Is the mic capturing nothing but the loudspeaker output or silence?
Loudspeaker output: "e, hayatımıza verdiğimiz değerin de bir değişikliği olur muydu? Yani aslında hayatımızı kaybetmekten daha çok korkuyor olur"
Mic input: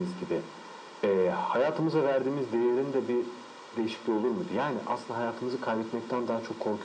Yes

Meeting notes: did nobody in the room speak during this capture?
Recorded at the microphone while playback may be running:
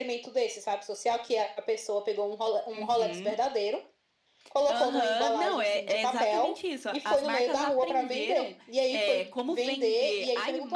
No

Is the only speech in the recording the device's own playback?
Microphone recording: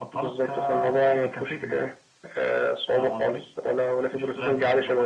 Yes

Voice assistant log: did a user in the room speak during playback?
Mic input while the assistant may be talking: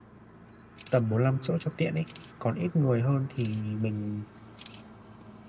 Yes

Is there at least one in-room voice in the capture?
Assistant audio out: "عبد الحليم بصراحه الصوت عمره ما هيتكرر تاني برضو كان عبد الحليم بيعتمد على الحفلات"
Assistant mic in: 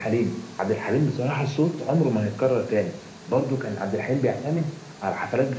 No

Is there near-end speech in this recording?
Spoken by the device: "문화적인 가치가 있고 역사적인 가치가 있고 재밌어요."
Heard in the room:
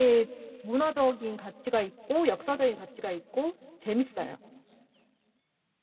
No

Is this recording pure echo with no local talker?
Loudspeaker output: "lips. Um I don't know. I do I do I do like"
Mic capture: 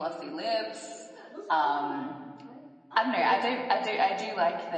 No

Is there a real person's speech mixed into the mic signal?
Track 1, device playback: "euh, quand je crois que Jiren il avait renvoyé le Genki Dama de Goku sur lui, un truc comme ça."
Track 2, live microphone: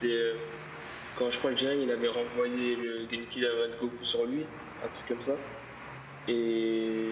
No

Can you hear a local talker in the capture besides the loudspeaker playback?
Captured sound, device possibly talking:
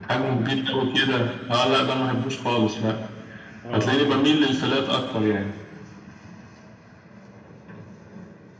Yes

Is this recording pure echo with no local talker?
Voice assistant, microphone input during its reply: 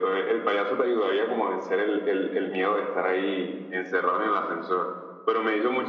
Yes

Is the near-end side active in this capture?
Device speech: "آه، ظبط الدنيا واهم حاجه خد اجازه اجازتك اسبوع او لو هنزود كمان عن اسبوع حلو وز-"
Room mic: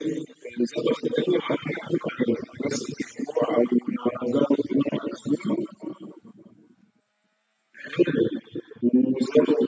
No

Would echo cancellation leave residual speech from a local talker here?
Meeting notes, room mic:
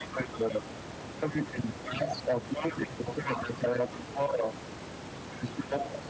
No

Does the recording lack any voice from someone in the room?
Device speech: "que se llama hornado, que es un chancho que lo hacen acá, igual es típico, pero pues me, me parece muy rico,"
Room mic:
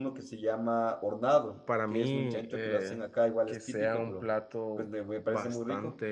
No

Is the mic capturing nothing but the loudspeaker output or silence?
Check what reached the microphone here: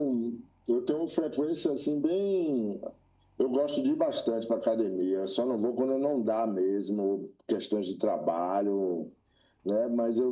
Yes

